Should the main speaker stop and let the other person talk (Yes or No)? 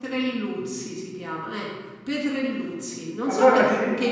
No